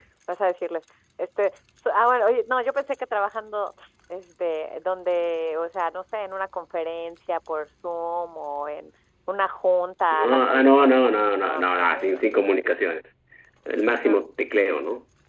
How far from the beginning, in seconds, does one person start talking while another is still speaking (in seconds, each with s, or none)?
10.1 s